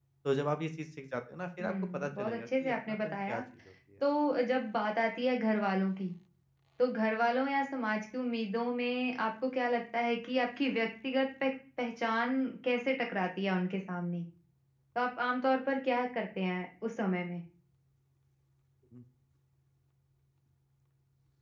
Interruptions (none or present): present